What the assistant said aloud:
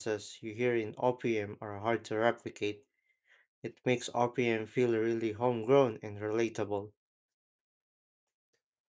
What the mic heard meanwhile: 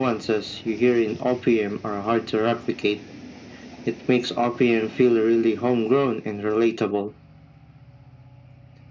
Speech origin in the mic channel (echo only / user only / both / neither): echo only